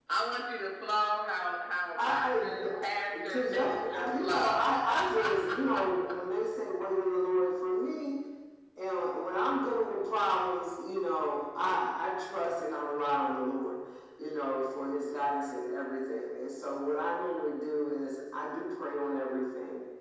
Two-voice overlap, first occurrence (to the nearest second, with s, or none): 2 s